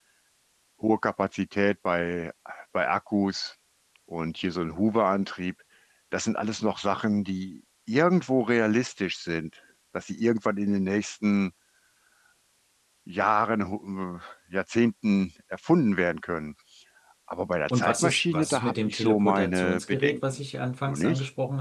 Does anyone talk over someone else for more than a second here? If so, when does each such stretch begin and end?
17.7-20.2

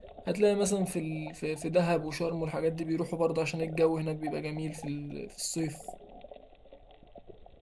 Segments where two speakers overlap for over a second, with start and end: none

